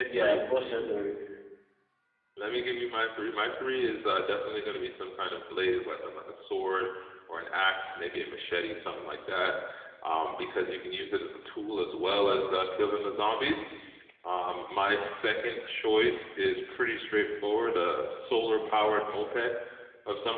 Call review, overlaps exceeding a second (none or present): none